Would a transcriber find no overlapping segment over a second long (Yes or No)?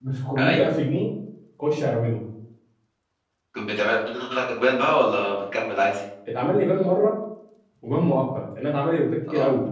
Yes